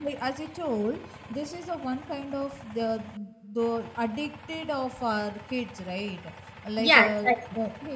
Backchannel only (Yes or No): Yes